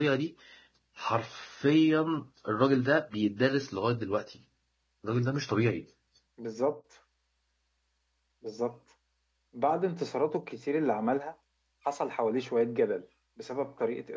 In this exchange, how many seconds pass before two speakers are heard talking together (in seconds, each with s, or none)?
none